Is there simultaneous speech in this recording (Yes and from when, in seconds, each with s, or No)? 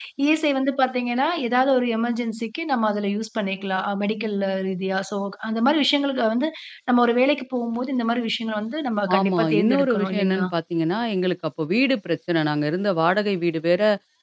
Yes, from 9.1 s